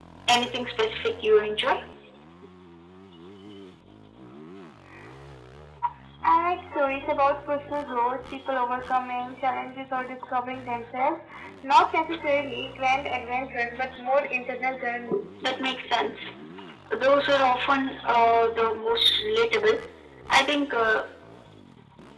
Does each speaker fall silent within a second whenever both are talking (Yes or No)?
Yes